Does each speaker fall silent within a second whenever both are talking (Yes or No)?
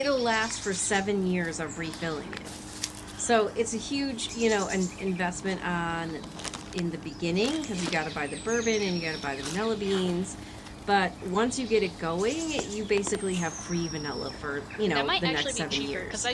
No